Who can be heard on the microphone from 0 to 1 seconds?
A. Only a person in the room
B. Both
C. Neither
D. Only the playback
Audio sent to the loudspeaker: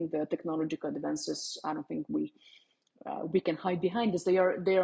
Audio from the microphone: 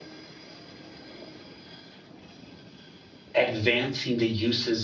C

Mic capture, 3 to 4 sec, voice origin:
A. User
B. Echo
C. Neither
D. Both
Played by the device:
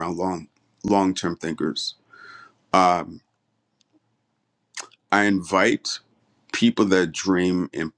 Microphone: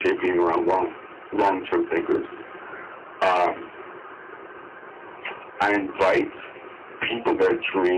B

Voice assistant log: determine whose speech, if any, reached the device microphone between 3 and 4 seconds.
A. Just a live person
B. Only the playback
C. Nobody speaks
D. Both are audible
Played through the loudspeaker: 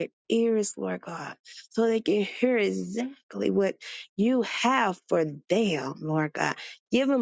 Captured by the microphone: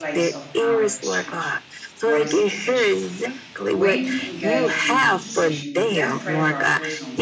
D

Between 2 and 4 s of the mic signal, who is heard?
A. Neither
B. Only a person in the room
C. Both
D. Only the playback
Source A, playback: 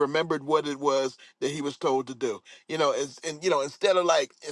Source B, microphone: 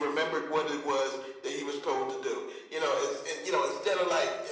D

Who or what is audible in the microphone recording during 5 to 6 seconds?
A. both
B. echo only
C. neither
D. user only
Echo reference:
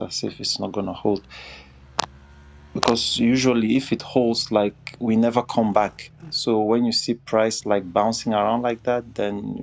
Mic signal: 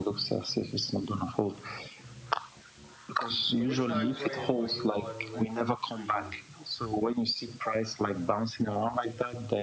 A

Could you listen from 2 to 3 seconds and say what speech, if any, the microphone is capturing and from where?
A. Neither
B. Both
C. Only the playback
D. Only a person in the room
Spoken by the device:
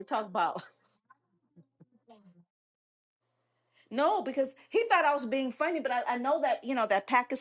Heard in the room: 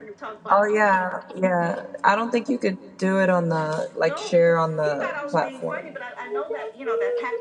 D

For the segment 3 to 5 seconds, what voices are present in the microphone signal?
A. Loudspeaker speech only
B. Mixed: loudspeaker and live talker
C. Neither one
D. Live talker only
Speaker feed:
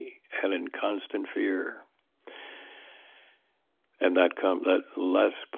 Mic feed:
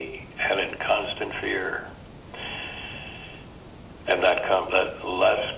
A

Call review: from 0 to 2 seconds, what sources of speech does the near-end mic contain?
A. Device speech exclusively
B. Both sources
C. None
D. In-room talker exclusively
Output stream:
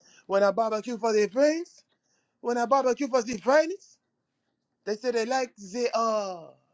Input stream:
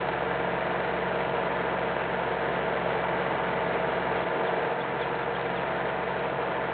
C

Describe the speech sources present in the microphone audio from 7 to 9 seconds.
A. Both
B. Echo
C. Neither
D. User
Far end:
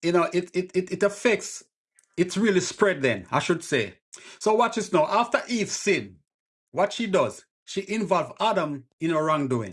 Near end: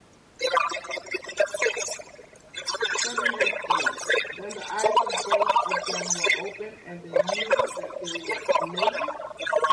A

